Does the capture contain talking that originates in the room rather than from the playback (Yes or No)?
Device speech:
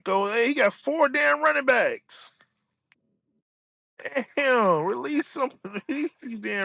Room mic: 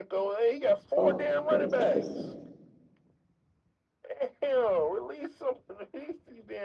Yes